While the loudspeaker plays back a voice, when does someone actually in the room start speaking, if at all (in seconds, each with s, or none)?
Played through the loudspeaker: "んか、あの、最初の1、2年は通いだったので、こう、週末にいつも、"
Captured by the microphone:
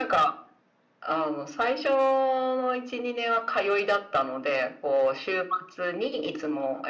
none